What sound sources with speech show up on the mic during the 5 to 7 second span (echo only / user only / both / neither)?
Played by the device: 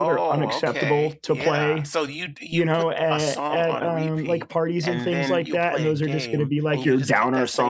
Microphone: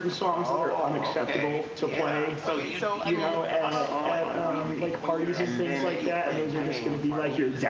both